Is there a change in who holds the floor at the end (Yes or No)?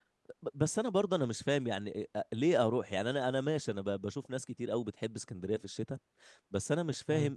No